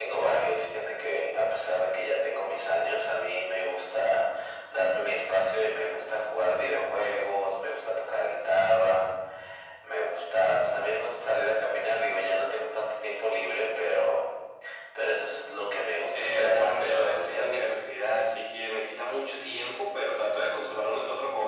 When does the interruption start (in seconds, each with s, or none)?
16.1 s